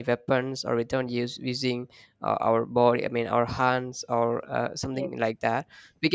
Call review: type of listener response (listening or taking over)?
listening